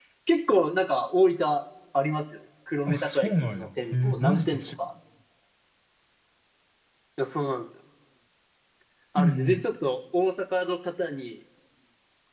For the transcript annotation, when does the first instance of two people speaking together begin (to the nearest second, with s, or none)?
3 s